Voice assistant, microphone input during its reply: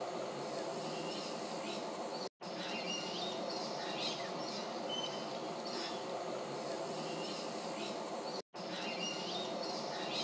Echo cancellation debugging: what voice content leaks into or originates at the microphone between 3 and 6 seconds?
neither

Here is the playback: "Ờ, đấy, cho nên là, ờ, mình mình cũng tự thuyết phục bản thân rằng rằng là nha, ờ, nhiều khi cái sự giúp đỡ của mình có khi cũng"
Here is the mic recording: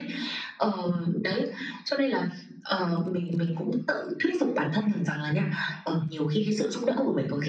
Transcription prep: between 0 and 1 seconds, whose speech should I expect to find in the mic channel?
echo only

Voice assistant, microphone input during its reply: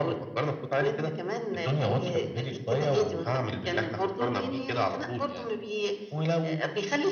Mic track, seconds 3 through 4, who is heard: echo only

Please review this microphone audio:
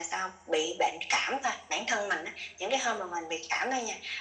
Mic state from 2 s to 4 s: echo only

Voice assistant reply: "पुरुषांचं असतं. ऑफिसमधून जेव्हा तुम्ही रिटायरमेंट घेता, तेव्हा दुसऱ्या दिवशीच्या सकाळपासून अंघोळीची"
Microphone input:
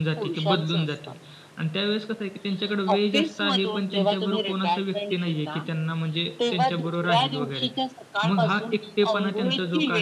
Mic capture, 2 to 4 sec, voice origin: both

